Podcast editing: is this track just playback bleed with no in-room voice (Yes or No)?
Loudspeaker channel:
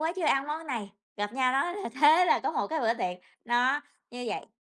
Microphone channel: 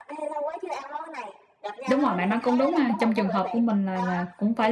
No